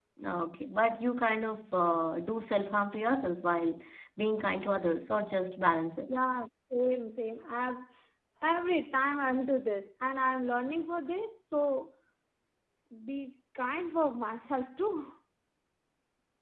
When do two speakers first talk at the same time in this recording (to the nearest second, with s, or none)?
none